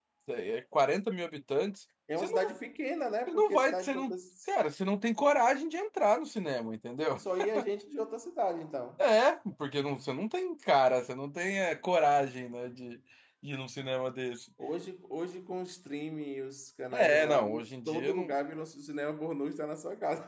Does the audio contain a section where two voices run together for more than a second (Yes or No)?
Yes